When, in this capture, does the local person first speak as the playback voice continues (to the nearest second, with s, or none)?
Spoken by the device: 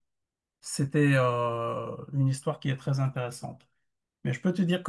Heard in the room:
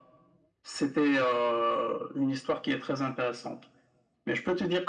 none